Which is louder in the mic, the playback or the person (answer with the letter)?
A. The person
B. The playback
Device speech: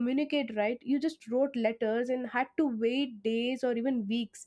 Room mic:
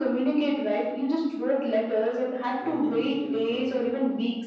B